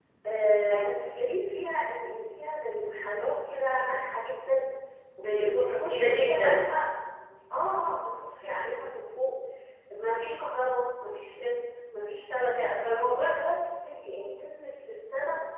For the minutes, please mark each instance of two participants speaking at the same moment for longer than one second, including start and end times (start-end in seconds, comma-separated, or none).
5.2-6.6